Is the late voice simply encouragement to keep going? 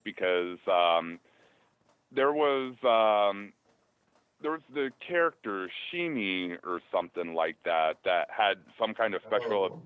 Yes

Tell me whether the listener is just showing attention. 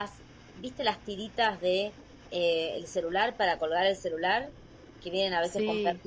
Yes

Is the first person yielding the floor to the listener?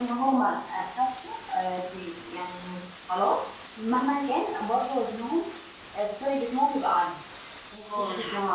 Yes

